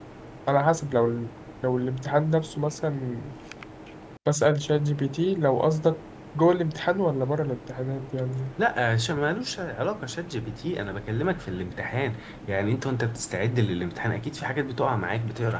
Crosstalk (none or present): none